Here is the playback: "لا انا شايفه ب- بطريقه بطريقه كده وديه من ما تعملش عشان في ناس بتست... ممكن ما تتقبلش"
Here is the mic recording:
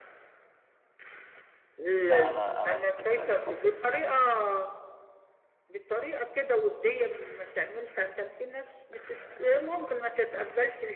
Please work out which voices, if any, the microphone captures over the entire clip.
both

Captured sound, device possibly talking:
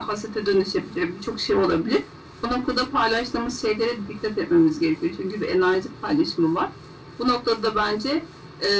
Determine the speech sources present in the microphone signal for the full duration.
echo only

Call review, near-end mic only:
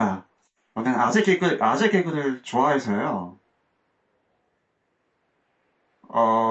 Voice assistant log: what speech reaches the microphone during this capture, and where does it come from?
user only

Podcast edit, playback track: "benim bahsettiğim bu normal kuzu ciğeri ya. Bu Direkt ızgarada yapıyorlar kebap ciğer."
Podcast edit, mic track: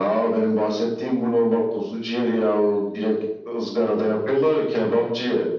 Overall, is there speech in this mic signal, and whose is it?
echo only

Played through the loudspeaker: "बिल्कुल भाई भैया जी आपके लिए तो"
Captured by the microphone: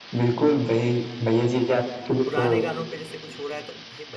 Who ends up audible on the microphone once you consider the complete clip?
both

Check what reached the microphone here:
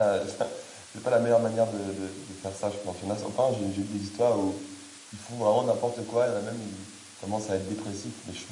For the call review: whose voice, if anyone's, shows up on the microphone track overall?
user only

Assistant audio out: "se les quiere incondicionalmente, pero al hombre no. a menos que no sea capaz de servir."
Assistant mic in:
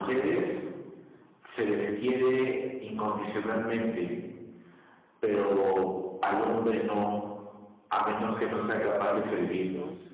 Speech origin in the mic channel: both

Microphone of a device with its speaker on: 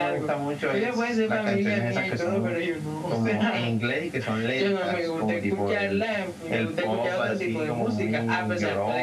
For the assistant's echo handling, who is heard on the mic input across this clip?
echo only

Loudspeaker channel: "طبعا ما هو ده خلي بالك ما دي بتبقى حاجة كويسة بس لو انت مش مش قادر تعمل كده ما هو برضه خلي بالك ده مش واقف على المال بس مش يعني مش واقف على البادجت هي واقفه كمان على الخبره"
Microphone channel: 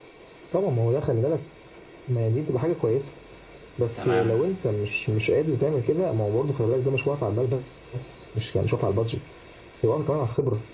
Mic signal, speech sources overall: both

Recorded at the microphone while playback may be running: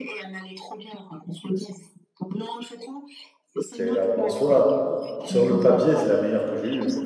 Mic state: both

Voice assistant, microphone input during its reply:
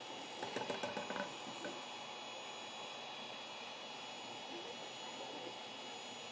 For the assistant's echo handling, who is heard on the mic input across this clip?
neither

